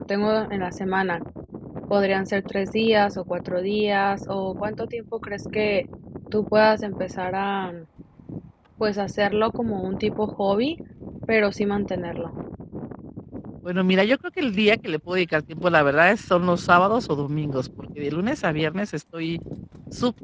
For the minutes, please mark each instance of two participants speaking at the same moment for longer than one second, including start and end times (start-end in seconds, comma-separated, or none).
none